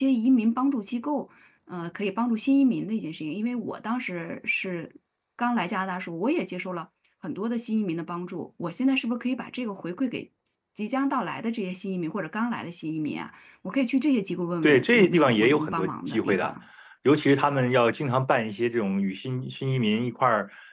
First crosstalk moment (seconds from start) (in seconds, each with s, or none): 14.6 s